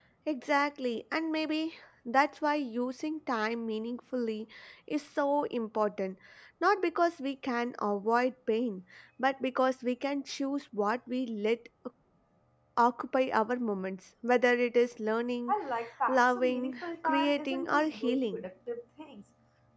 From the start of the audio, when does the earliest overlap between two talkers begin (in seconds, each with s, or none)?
16.1 s